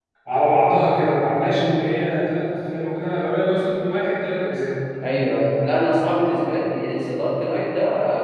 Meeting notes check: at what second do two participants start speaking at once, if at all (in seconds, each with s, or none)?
none